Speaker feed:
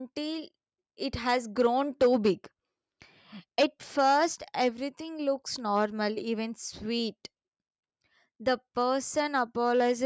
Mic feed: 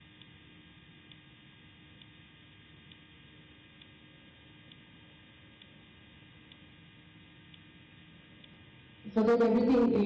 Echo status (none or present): none